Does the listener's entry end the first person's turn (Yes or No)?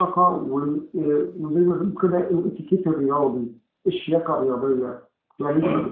No